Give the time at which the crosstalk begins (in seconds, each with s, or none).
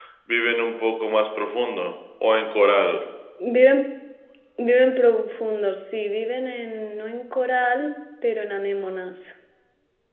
none